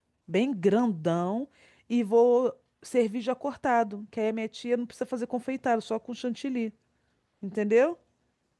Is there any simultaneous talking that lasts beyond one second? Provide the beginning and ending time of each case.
none

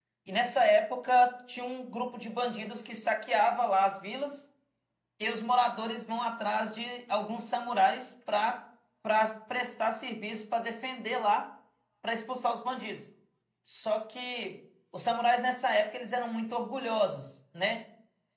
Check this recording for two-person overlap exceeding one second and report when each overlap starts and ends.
none

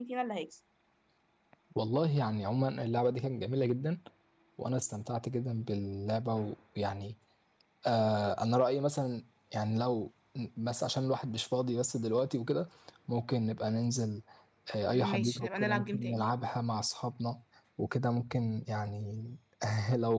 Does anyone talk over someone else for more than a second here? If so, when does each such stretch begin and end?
14.9-16.2

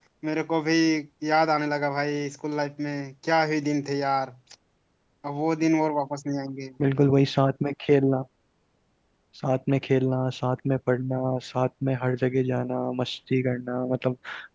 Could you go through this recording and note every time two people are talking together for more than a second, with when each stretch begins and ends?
none

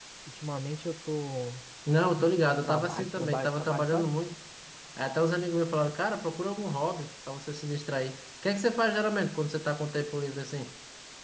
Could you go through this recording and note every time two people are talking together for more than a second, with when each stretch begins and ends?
2.2-4.1

